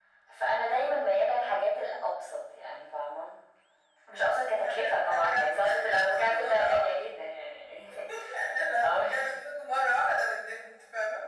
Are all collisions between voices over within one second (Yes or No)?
No